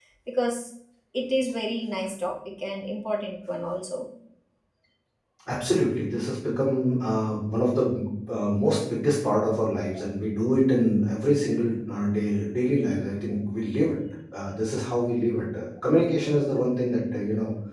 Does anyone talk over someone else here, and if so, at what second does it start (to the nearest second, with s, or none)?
none